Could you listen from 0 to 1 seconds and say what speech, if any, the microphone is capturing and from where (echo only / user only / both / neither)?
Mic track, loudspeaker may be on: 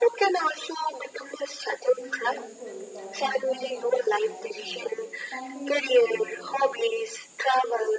echo only